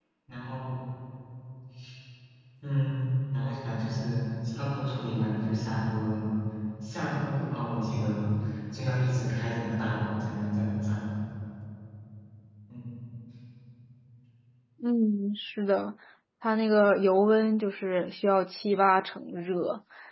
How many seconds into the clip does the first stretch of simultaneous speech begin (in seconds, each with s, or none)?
none